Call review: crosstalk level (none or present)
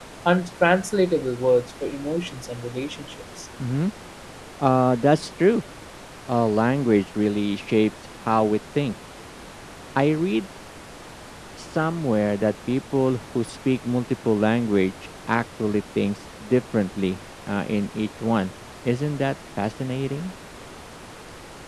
none